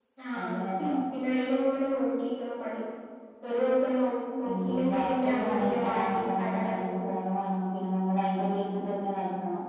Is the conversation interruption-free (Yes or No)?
No